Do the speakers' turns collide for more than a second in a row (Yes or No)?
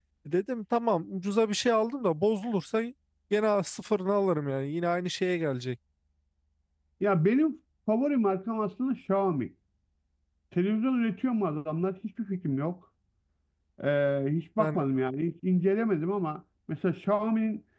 No